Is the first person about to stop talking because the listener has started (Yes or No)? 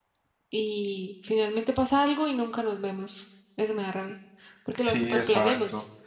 Yes